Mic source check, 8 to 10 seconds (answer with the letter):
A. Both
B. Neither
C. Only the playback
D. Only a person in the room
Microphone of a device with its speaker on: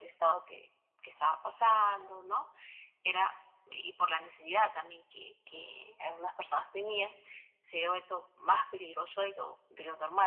C